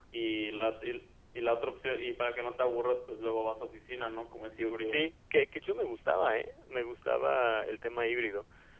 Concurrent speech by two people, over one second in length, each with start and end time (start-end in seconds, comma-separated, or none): none